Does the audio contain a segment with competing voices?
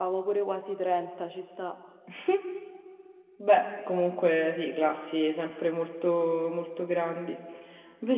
No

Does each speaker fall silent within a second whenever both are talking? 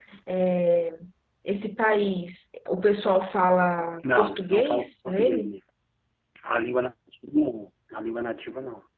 No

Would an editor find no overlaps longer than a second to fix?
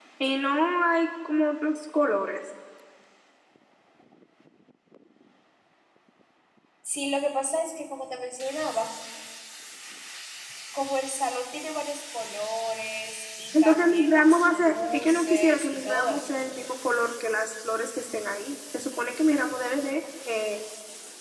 No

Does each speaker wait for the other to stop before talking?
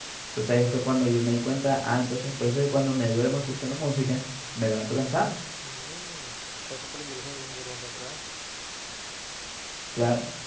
Yes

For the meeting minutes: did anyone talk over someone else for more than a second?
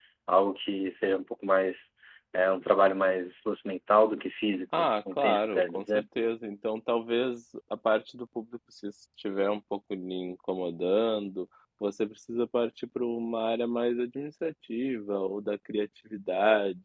Yes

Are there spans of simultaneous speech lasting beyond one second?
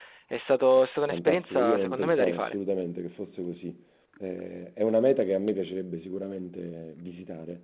Yes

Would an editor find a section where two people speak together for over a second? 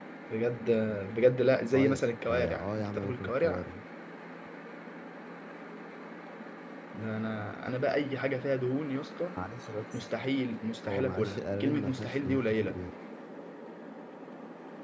Yes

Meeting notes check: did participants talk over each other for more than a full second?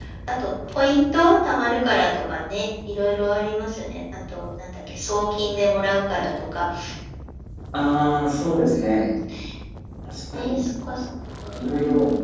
No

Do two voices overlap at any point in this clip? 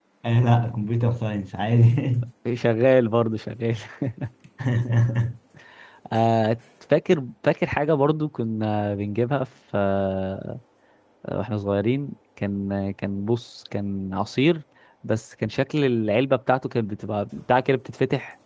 No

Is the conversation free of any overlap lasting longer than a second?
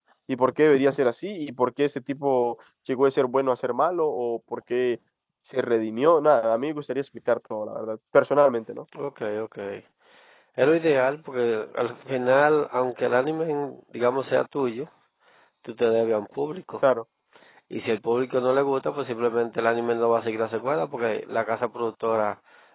Yes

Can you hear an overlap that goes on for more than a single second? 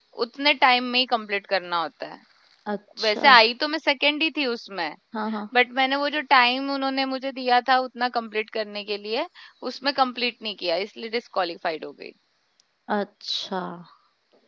No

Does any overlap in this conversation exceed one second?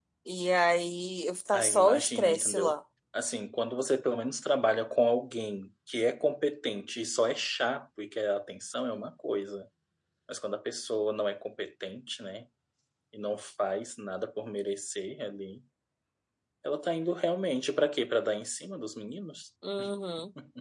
Yes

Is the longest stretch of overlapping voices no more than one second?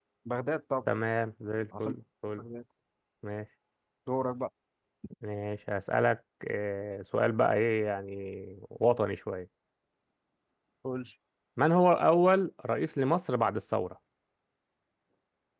Yes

